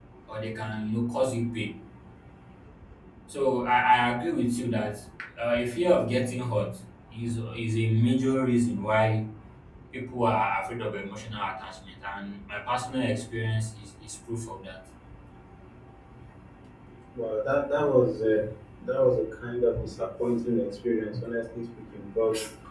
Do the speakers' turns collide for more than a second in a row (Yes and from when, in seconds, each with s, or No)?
No